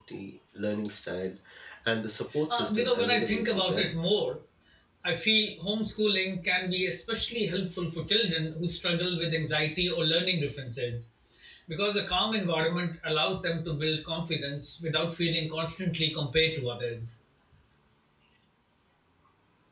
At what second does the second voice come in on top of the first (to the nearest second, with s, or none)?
2 s